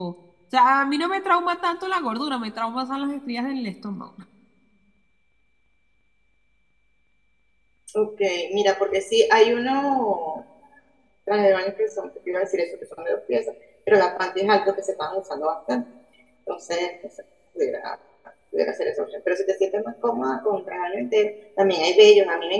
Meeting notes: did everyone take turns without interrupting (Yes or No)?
Yes